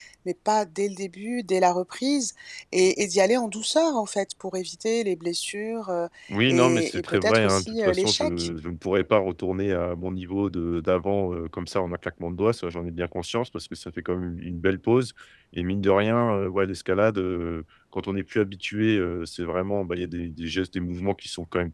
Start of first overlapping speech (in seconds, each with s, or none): 6.5 s